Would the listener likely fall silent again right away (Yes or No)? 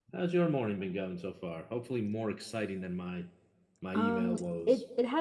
No